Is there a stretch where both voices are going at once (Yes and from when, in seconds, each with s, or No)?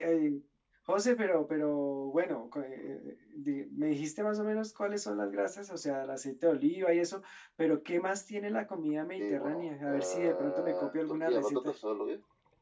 Yes, from 9.2 s